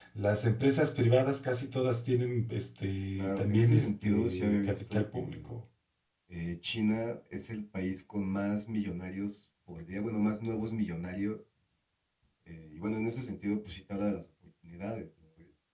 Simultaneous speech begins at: 3.2 s

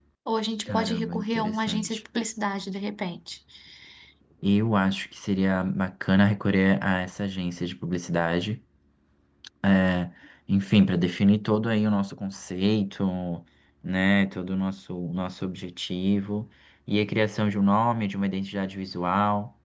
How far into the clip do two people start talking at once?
0.7 s

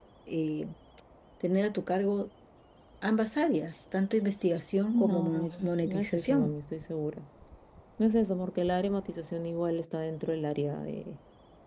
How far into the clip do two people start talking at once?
4.9 s

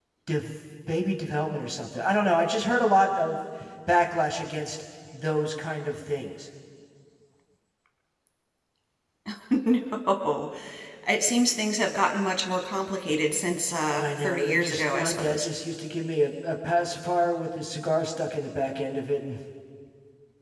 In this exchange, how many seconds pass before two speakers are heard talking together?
14.0 s

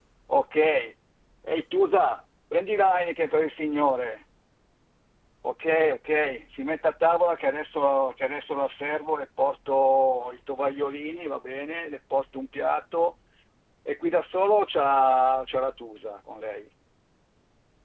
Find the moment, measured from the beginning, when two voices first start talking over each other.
none

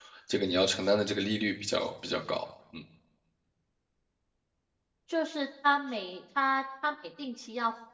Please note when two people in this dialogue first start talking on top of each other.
none

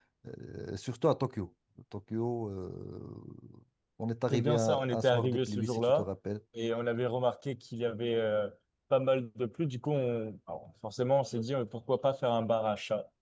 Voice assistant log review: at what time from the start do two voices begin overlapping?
4.3 s

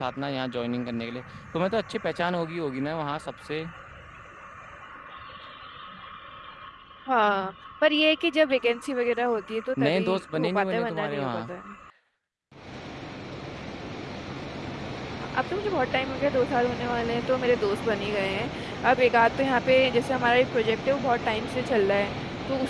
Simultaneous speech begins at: 9.8 s

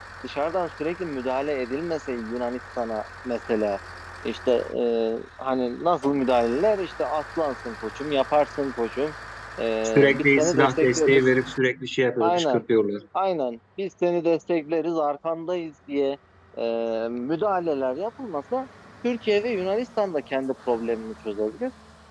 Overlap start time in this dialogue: 9.8 s

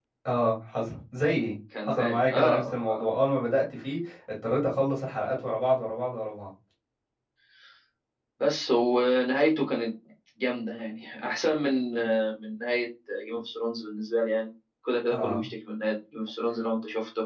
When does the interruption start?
1.8 s

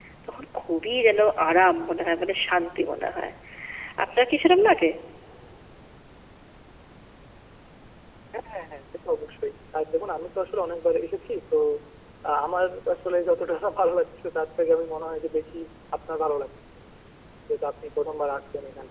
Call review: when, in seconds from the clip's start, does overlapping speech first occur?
none

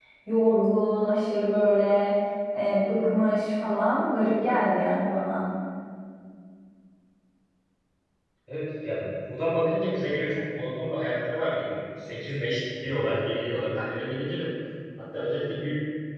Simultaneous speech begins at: none

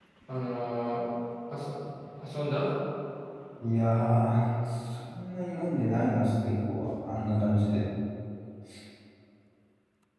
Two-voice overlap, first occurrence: none

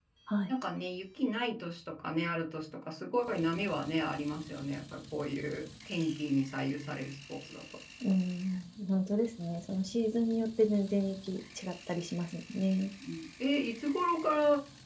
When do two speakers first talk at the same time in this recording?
none

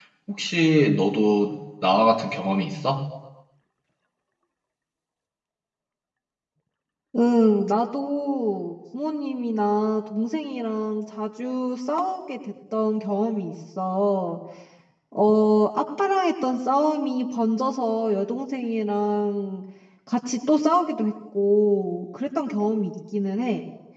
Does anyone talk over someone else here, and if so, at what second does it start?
none

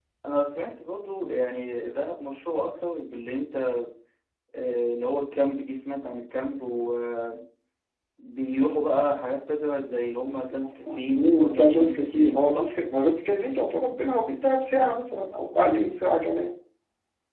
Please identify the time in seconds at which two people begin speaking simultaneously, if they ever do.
11.2 s

